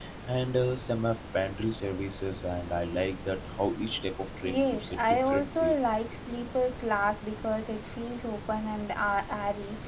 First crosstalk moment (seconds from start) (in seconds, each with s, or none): 4.4 s